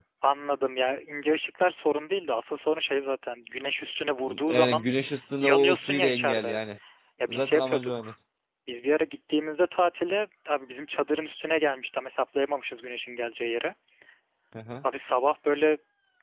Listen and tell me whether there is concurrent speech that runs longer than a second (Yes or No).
Yes